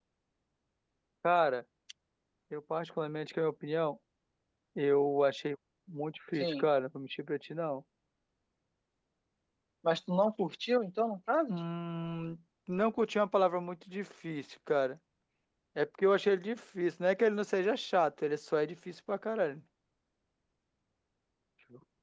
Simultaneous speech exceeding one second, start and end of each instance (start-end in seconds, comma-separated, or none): none